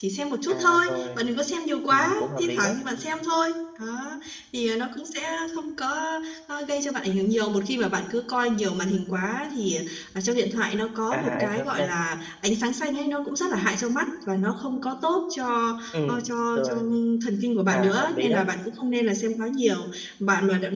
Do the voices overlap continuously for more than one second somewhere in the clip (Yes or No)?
Yes